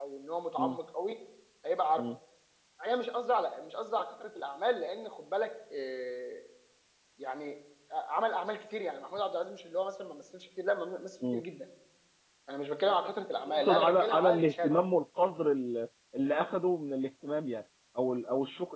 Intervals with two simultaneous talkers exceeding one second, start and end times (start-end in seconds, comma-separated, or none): 13.5-14.8